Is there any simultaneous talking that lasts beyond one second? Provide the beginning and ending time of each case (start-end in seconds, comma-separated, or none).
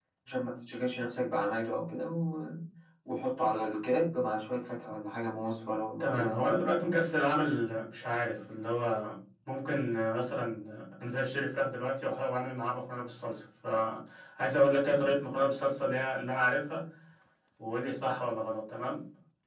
none